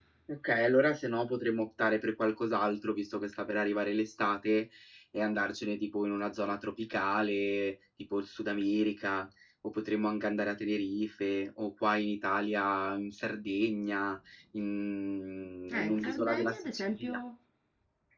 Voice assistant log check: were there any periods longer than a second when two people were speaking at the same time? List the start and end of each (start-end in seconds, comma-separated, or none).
15.7-17.2